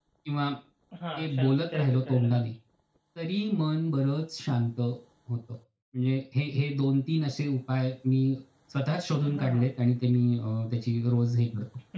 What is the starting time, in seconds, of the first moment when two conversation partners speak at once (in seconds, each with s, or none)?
1.1 s